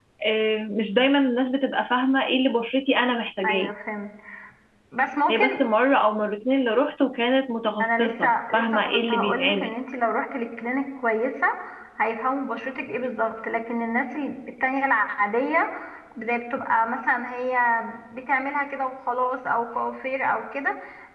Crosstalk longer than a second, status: present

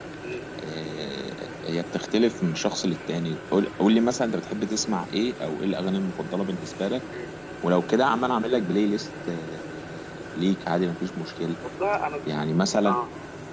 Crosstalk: none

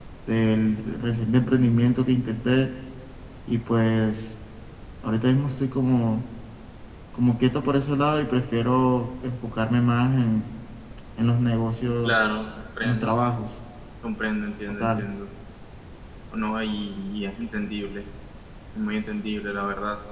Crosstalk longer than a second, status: none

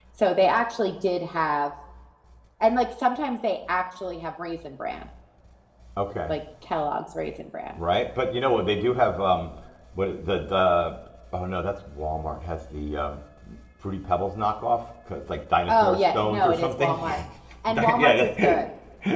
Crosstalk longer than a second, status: present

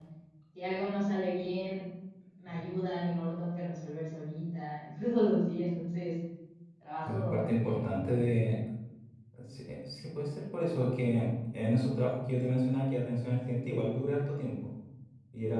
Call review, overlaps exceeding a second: present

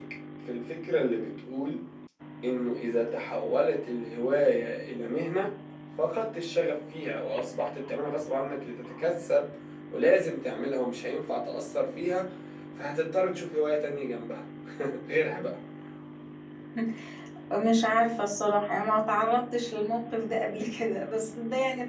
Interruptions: none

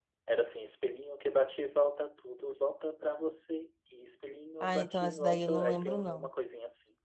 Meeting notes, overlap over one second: present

